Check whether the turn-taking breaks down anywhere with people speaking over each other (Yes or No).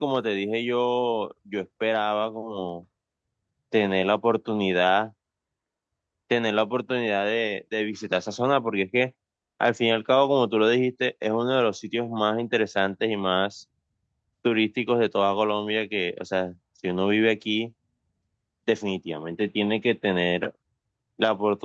No